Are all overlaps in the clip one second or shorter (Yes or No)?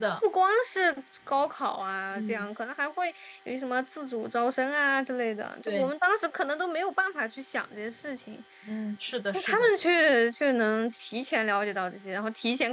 Yes